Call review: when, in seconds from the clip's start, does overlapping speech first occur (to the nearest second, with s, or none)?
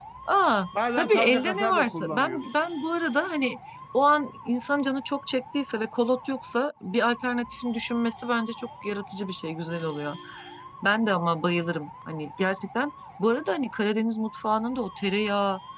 1 s